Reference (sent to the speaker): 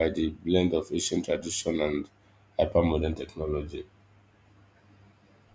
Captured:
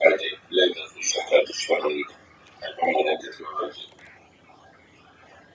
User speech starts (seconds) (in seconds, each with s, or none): none